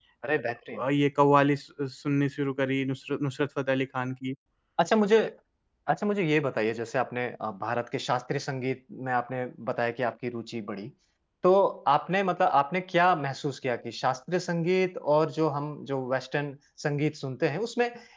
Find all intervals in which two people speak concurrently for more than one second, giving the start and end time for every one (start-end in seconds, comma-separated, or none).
none